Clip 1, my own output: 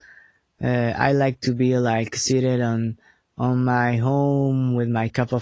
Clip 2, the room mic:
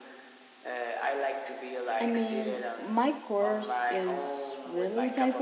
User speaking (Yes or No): Yes